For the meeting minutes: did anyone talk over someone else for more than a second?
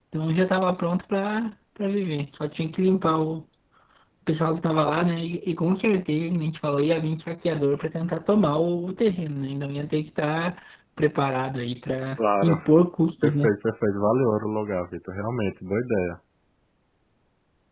No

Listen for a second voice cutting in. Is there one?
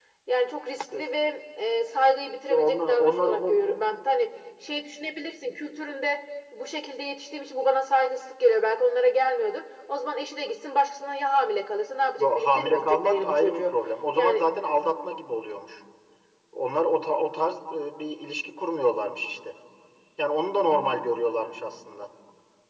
Yes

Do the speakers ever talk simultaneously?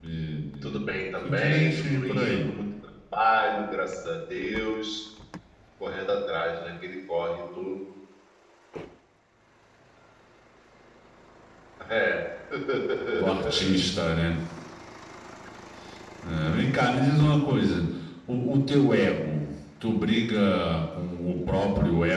Yes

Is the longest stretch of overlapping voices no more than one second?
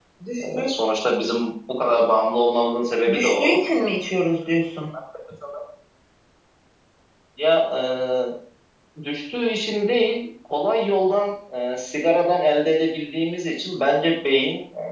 Yes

